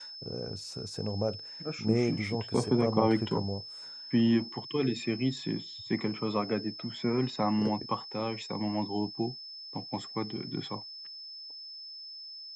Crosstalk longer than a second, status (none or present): present